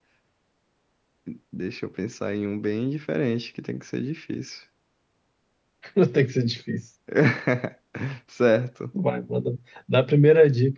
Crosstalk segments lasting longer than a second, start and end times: none

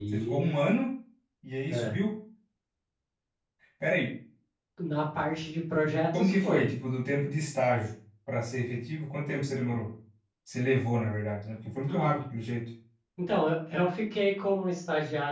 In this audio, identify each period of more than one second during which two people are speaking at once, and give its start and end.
none

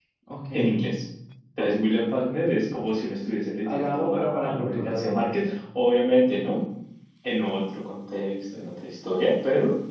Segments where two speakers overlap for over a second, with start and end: 3.7-5.1

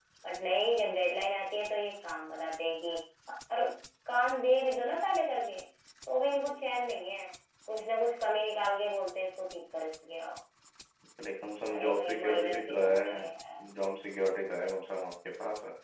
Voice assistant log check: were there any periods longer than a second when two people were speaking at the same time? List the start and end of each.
11.7-13.6

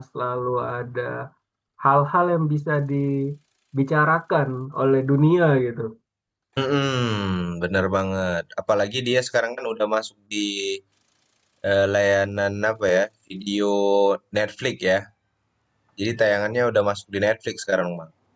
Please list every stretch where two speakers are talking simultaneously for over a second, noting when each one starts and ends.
none

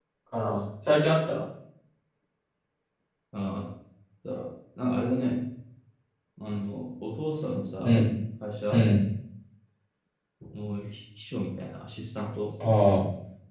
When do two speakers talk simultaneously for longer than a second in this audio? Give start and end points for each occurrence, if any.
none

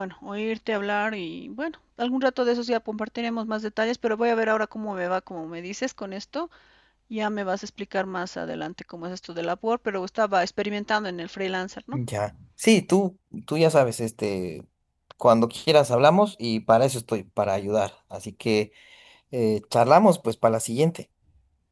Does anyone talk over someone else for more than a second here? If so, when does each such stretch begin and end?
none

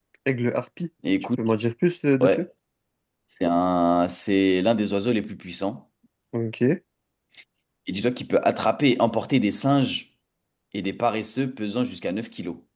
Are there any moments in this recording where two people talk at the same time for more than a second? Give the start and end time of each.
none

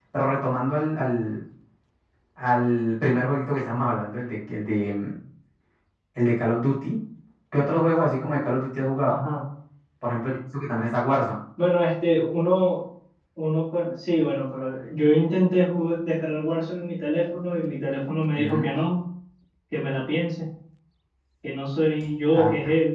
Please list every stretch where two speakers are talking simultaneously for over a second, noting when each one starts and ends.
none

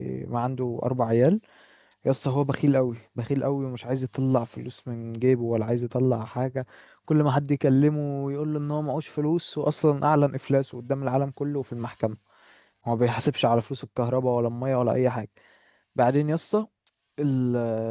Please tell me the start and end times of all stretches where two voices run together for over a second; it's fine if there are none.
none

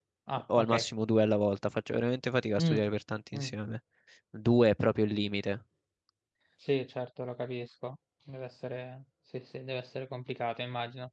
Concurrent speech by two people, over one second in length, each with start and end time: none

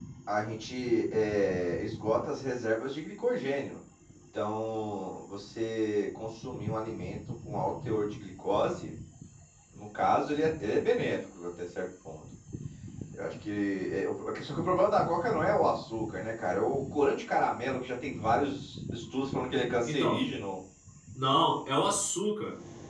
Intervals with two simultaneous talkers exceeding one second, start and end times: none

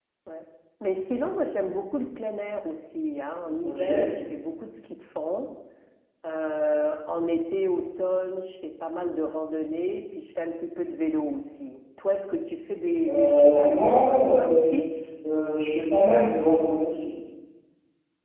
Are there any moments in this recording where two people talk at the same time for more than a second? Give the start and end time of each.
13.1-14.7

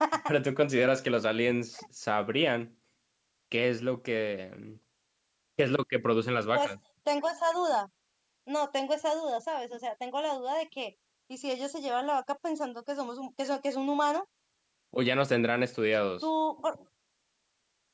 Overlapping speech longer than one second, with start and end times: none

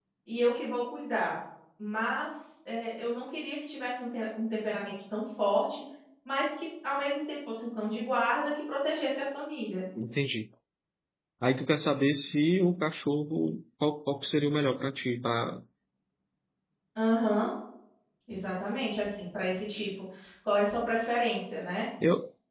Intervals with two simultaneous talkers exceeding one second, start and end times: none

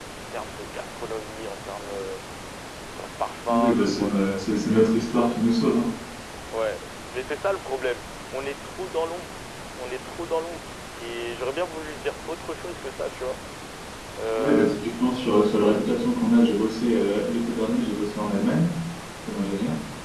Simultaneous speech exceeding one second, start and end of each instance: 3.5-5.1

